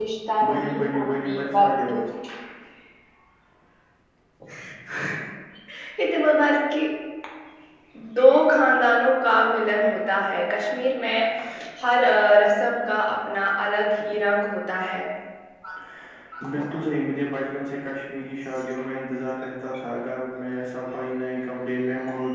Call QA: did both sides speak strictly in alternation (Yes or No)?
No